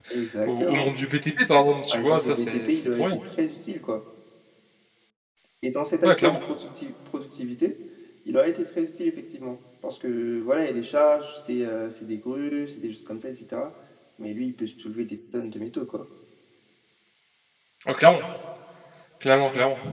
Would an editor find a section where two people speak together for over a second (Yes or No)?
Yes